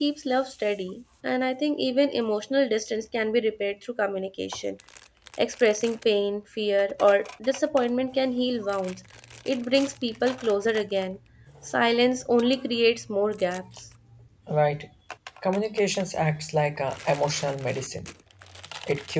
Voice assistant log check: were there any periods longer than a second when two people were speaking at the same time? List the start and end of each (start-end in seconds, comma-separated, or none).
none